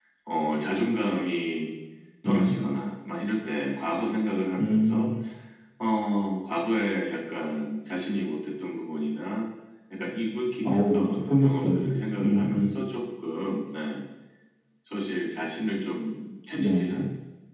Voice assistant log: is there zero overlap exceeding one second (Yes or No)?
No